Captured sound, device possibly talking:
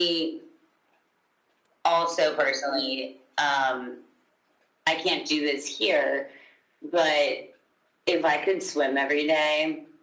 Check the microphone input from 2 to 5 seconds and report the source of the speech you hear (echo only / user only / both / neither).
echo only